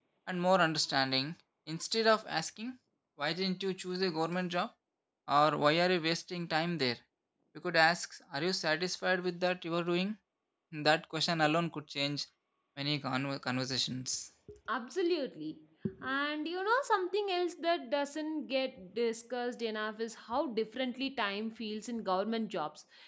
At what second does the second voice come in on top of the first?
none

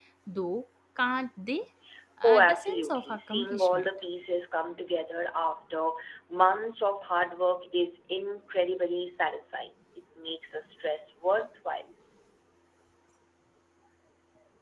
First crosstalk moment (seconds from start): 2.2 s

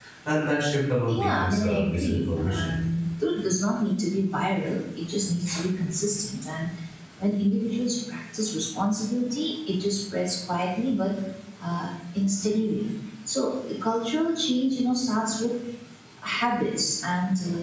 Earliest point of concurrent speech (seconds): 1.1 s

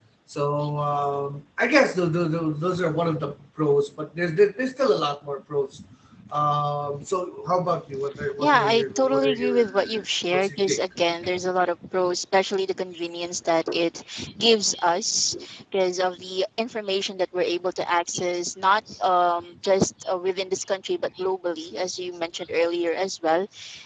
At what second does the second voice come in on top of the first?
8.2 s

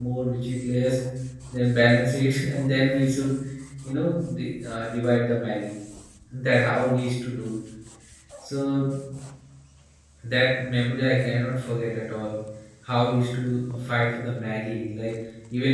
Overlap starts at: none

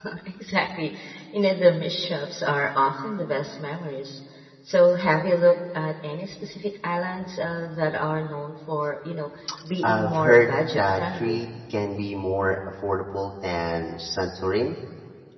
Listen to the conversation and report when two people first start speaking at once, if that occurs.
9.8 s

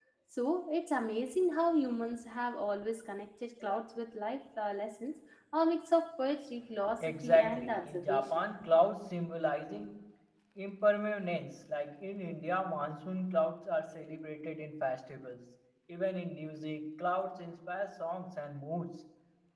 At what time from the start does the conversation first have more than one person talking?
7.0 s

